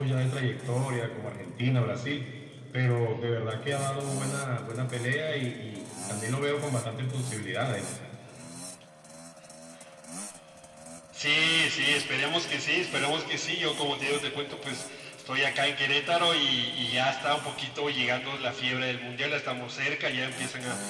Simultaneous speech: No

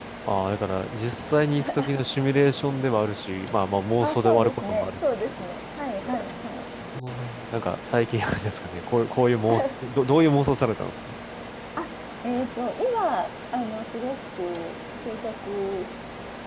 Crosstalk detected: Yes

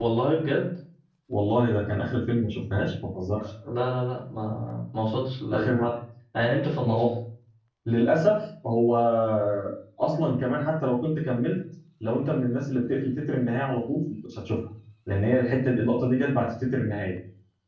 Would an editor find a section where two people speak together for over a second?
No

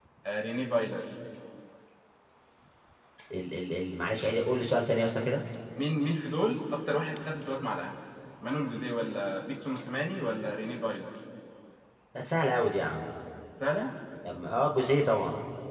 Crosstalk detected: No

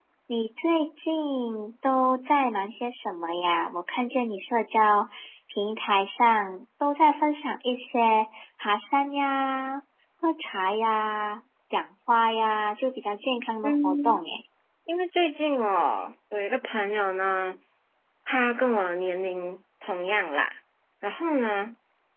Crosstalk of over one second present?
No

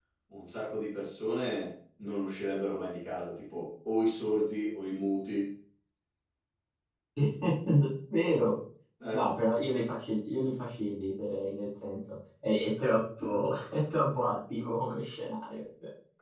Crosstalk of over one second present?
No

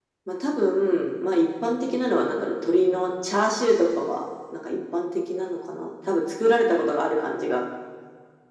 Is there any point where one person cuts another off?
No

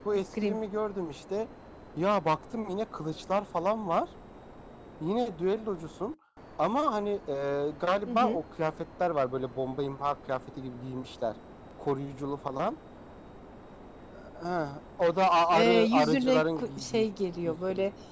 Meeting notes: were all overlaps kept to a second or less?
No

